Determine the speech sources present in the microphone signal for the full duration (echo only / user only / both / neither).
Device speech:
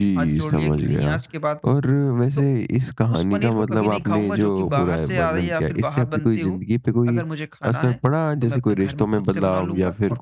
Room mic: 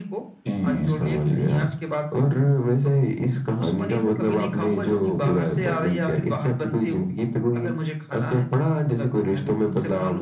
echo only